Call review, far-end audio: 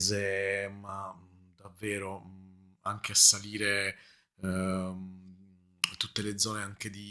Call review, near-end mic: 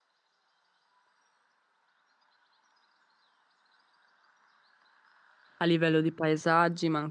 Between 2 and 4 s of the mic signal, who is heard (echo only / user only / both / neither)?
neither